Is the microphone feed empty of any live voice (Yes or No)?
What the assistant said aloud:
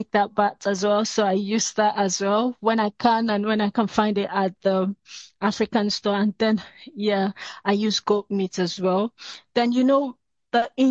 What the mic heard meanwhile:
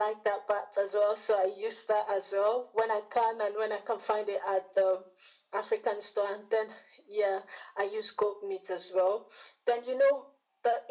Yes